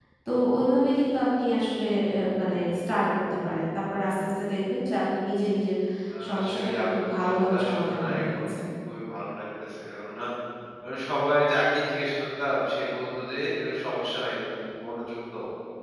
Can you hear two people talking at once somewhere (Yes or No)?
Yes